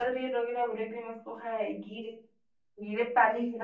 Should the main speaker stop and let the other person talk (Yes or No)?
No